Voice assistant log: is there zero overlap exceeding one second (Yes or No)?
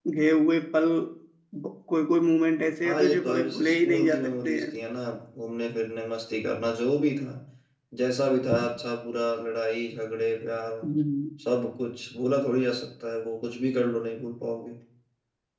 No